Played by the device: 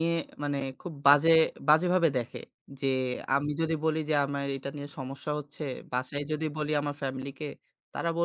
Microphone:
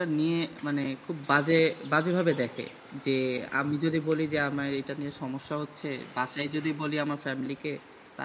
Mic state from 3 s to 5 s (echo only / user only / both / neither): echo only